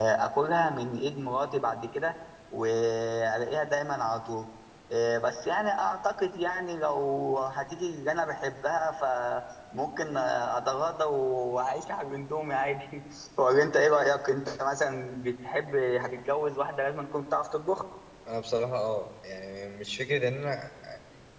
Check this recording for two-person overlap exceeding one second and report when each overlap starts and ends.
none

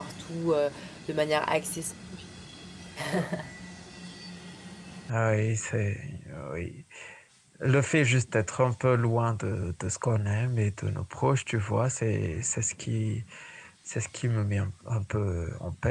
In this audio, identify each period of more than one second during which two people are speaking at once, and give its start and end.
none

